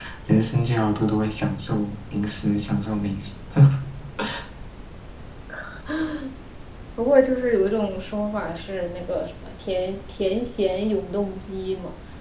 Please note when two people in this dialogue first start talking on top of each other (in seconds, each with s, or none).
none